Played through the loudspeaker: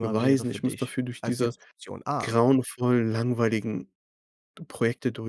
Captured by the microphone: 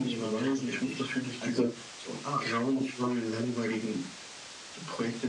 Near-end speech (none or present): none